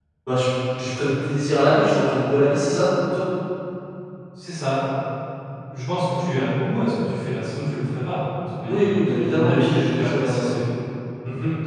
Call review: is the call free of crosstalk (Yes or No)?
No